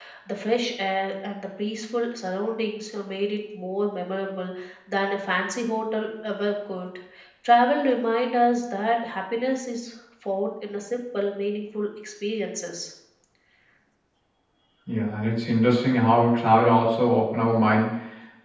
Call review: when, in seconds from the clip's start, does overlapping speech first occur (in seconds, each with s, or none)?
none